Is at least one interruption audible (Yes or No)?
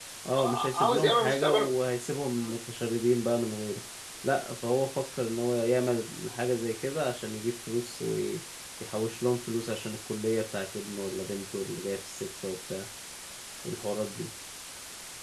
Yes